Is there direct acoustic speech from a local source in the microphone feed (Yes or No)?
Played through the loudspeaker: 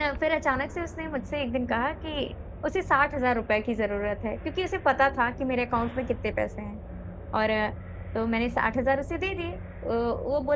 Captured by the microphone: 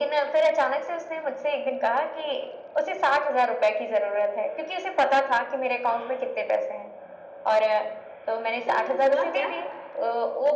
Yes